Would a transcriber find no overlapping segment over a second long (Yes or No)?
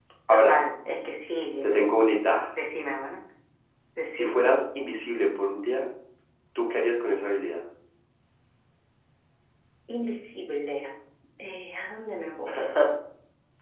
Yes